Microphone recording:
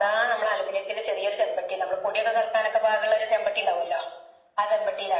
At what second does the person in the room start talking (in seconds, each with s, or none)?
none